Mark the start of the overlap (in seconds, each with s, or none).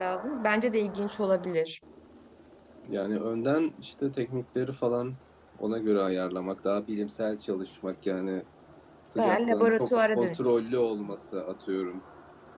9.2 s